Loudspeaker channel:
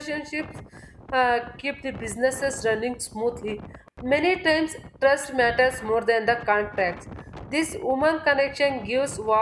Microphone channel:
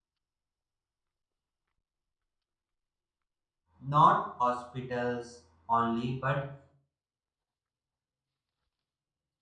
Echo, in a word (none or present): none